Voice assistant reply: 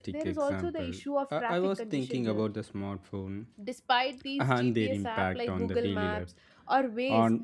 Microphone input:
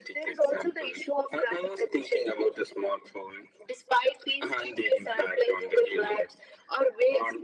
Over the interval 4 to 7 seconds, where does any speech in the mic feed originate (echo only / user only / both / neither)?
echo only